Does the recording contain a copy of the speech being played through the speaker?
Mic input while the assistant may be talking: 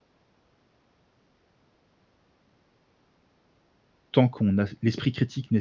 No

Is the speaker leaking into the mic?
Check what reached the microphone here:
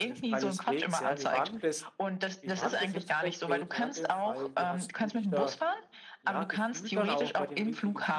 Yes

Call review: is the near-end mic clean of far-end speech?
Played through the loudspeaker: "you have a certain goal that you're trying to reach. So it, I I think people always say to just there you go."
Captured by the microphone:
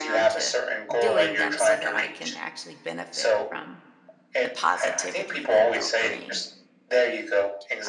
No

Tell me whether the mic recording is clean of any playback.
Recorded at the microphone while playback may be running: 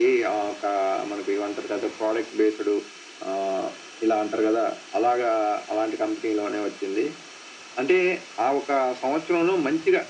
No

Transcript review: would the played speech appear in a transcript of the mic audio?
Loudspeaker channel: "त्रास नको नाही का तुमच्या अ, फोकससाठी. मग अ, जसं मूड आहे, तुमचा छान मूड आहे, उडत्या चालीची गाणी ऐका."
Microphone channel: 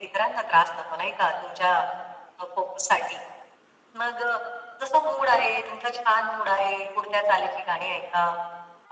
Yes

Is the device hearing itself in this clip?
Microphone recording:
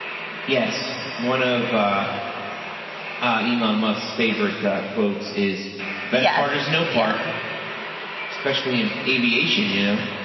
Yes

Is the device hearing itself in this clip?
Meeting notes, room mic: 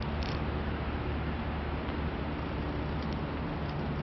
No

